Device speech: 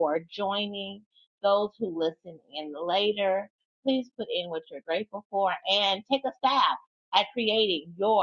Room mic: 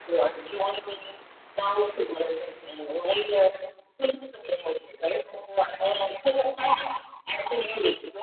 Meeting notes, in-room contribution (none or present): none